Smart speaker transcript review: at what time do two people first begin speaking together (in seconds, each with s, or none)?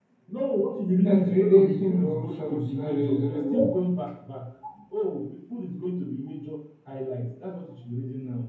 1.0 s